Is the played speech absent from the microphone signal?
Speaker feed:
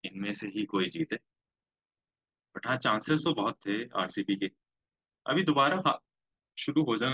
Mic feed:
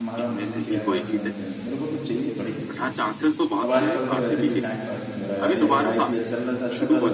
No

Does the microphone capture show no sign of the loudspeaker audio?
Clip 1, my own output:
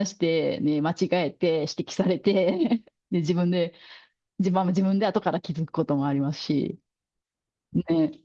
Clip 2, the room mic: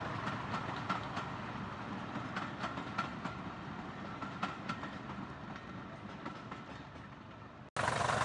Yes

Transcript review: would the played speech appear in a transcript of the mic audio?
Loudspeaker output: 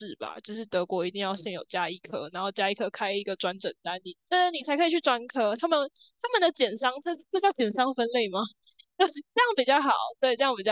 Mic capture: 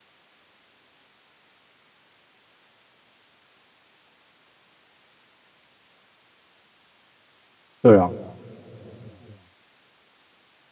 No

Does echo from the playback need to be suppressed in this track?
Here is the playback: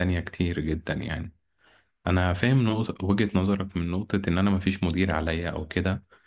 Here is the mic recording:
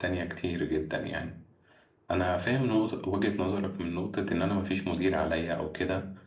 Yes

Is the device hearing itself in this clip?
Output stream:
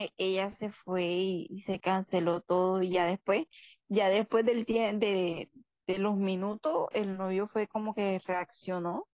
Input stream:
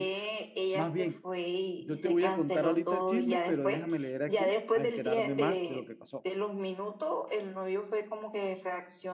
Yes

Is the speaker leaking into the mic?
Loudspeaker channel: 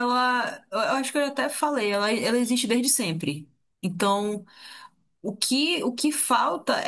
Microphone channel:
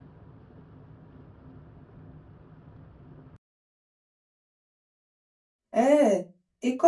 No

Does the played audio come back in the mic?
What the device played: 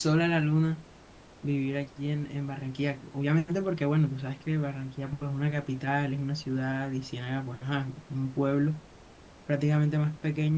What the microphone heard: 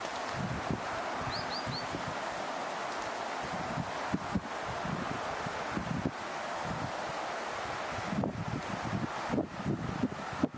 No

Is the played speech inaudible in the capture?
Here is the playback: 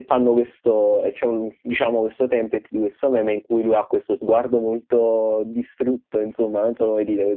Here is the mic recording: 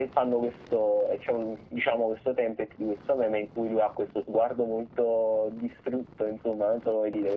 No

